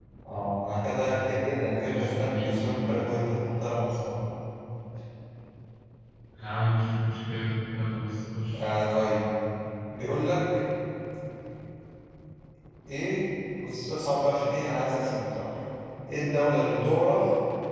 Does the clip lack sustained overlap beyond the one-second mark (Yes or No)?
No